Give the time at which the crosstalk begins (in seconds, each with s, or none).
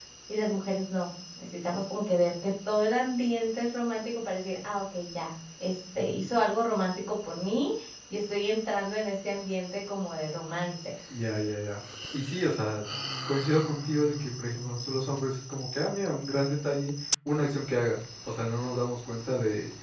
none